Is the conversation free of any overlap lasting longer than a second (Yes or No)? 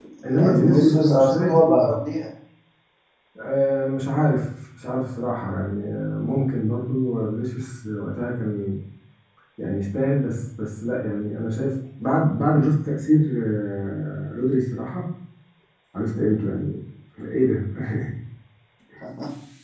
No